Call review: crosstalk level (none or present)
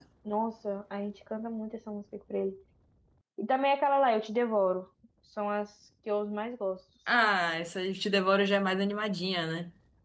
none